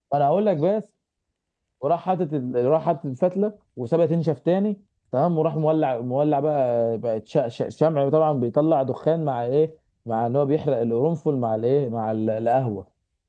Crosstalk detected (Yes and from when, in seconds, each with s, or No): No